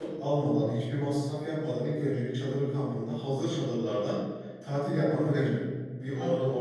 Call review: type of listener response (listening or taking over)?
listening